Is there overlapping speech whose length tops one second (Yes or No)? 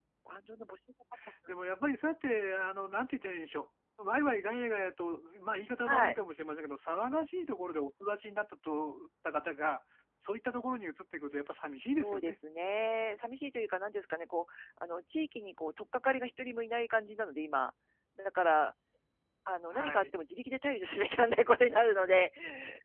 No